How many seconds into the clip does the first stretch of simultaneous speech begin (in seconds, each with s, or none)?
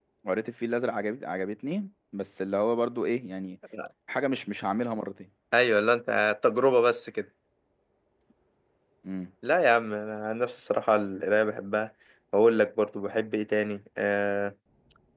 none